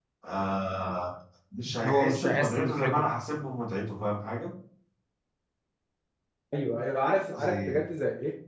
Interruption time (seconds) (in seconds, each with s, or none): 1.9 s